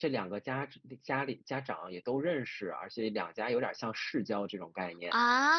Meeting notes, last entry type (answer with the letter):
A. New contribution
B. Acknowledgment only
B